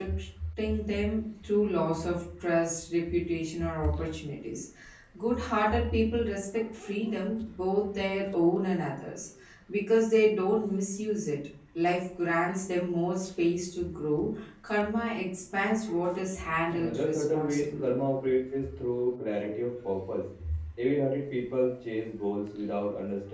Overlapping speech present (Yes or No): Yes